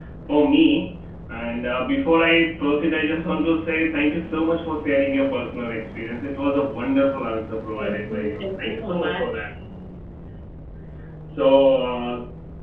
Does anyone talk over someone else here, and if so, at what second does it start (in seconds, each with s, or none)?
7.8 s